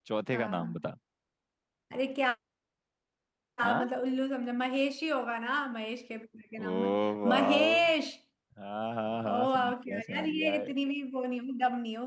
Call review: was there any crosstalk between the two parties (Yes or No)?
Yes